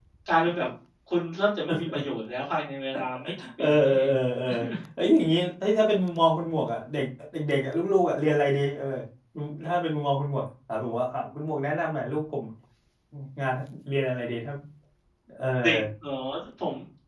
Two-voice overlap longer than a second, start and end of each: none

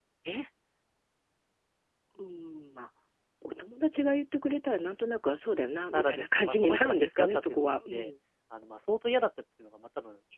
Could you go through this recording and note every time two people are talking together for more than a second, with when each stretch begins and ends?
5.9-8.1

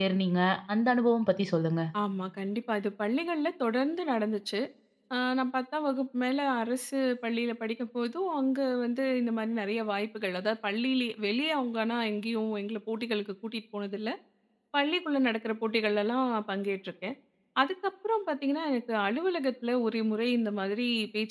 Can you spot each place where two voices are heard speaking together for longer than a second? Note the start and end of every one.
none

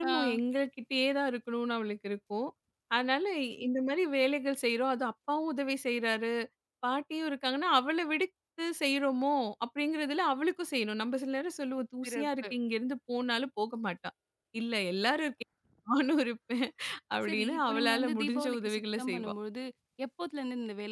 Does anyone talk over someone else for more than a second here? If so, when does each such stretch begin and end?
17.2-19.3

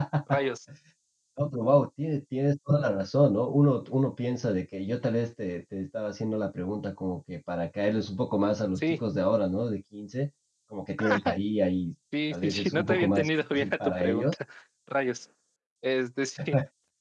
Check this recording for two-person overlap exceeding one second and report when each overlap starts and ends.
12.3-14.3

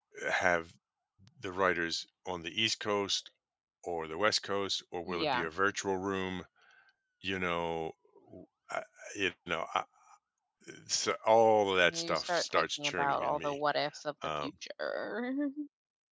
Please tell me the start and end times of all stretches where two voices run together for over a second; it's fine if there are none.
11.8-13.6

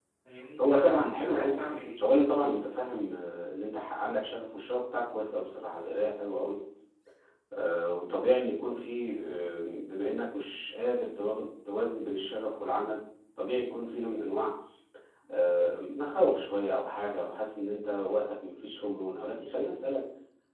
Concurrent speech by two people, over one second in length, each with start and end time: 0.7-2.0

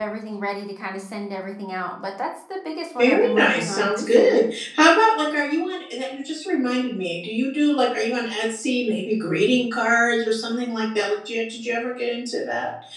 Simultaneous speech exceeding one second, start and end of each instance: 3.0-4.4

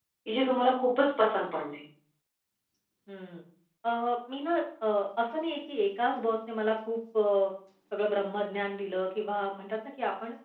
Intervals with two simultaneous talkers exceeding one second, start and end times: none

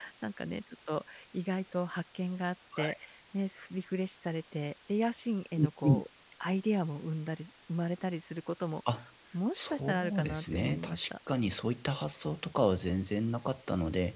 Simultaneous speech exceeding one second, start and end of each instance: 9.5-11.0

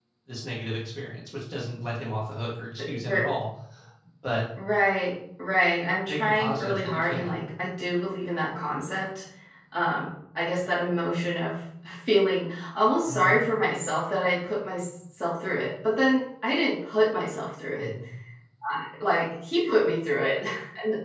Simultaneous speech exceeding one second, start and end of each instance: 6.1-7.4

